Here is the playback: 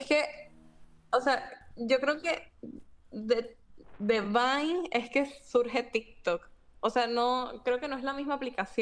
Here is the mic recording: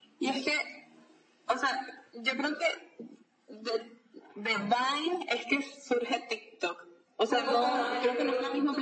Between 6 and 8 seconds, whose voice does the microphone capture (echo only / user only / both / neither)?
both